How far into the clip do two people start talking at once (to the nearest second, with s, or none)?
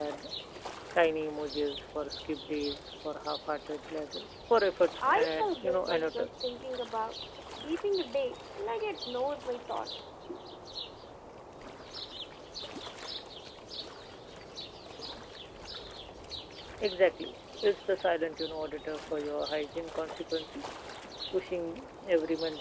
5 s